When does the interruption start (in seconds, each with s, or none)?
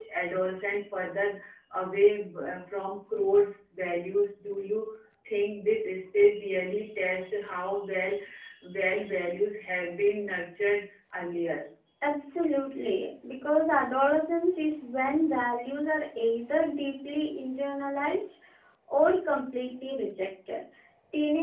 none